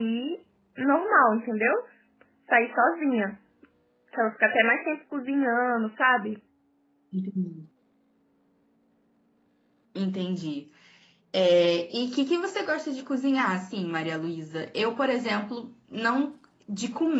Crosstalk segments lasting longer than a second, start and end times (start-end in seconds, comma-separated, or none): none